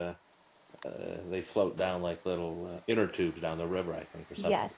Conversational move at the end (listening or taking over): listening